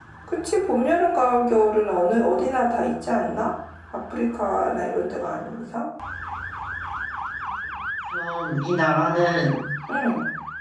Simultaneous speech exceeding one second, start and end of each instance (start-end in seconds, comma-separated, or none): none